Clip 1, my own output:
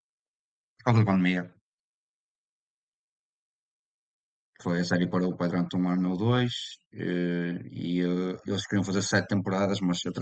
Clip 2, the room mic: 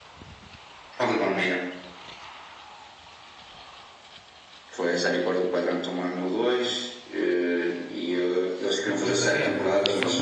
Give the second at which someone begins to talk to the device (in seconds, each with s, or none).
8.8 s